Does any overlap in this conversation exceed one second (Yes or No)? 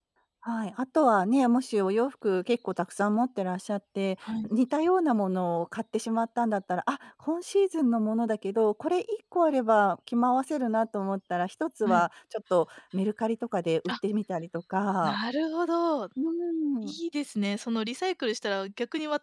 No